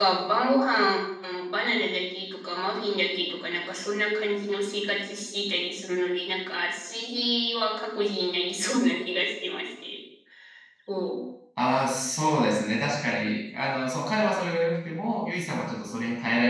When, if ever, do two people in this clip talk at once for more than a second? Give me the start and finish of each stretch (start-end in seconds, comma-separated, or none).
none